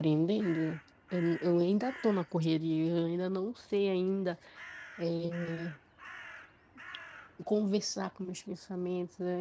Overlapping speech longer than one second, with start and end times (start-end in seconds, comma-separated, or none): none